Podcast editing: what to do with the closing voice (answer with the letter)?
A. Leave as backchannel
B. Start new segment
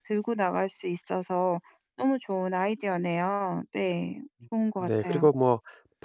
B